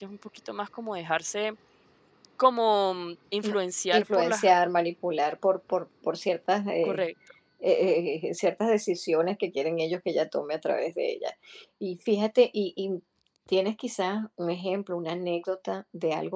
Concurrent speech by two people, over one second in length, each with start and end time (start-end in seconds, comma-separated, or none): none